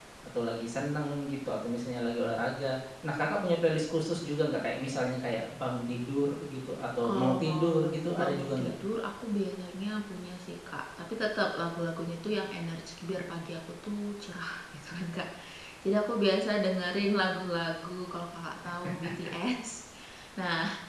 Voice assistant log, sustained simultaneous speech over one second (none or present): present